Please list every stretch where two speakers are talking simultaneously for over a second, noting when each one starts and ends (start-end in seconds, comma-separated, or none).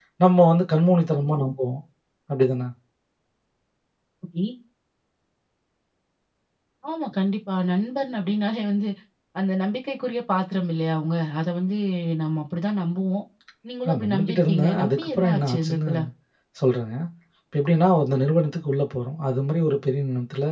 13.8-15.9